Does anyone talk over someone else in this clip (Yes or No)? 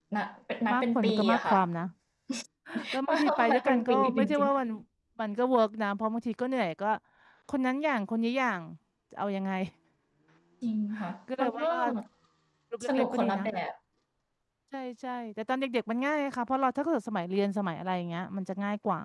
Yes